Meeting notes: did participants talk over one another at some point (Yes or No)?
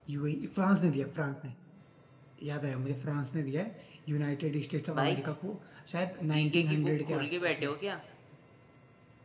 Yes